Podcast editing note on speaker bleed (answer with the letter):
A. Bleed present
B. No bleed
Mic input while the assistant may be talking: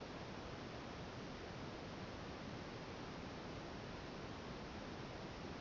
B